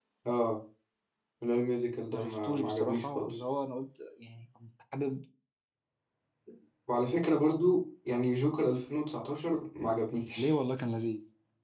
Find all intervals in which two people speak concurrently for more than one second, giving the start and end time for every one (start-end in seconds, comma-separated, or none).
2.1-3.4